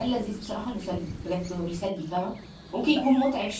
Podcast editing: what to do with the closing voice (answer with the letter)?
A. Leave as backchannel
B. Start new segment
A